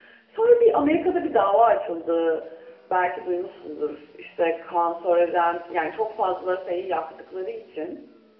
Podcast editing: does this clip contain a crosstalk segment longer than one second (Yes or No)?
No